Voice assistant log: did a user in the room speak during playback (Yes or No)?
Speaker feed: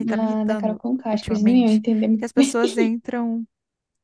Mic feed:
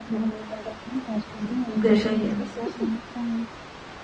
Yes